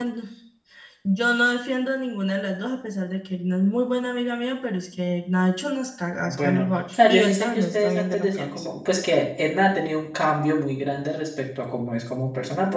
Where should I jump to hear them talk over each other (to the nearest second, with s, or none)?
6 s